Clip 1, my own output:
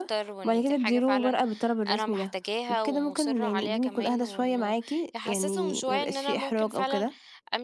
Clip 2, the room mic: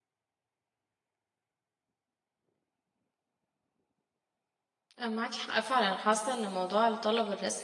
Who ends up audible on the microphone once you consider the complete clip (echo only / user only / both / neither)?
user only